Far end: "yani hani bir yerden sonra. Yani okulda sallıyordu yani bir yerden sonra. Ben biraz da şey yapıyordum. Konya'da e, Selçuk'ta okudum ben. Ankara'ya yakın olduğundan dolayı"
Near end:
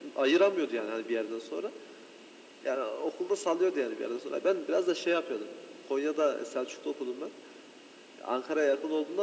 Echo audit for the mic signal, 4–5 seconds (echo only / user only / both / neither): echo only